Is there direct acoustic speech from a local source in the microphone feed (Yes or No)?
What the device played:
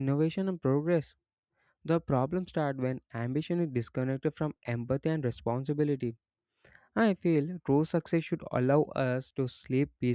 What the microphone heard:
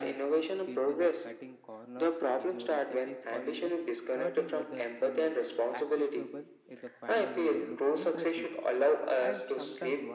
Yes